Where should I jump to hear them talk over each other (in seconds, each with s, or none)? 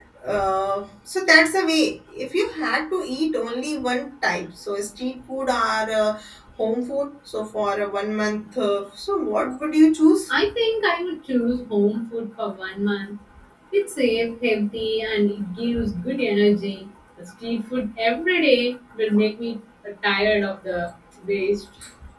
none